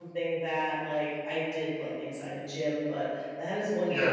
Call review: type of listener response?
listening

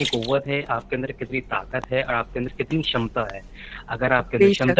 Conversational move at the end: listening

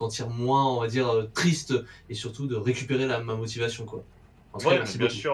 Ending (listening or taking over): taking over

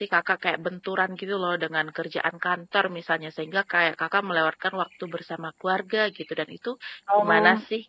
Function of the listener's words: taking over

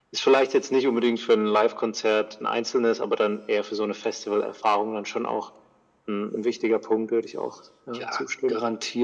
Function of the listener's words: taking over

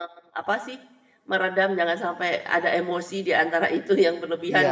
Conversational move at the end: taking over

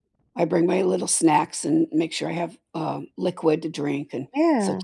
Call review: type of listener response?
listening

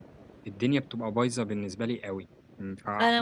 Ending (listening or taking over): taking over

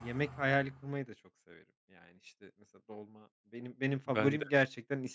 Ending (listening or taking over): listening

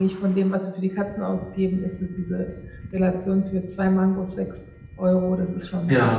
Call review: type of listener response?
taking over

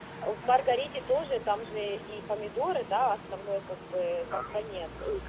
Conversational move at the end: taking over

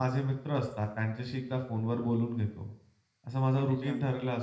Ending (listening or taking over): listening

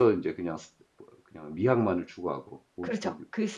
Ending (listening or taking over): taking over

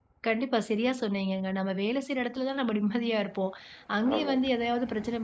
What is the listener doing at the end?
listening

